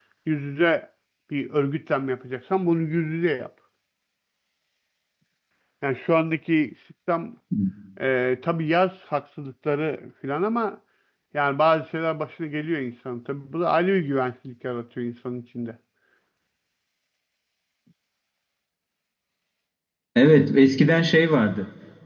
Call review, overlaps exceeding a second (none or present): none